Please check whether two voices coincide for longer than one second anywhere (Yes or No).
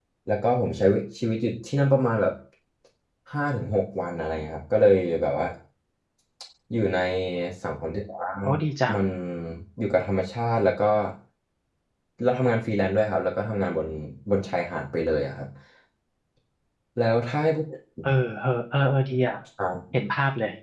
No